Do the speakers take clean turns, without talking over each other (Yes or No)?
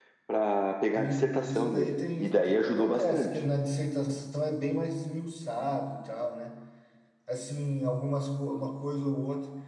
No